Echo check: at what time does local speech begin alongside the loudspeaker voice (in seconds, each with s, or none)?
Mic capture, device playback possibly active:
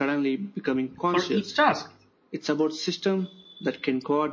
1.1 s